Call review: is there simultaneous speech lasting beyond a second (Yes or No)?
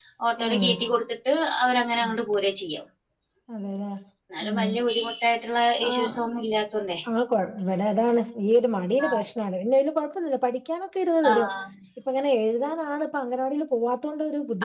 No